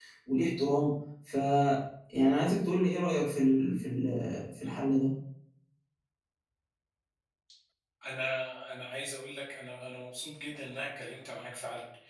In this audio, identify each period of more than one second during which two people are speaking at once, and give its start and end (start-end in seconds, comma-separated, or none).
none